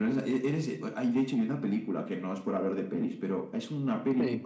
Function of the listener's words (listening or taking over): listening